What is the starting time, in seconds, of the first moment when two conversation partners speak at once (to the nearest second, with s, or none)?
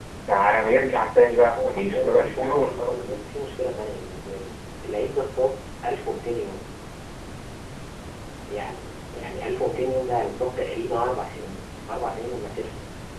1 s